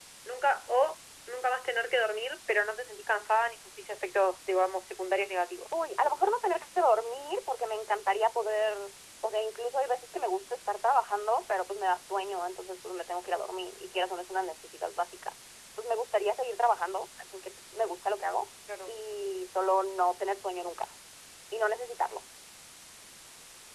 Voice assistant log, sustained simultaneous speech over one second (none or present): none